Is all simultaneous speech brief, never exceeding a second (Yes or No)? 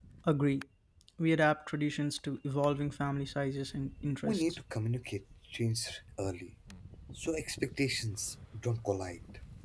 Yes